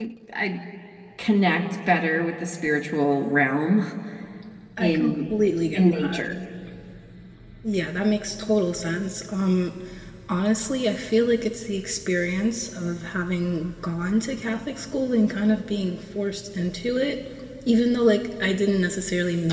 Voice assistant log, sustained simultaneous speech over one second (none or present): none